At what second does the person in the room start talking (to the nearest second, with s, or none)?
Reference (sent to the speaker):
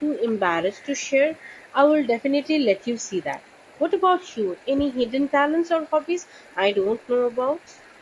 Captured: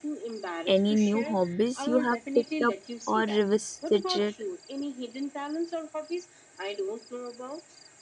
1 s